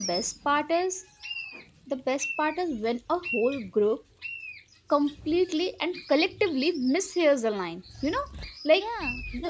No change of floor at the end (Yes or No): Yes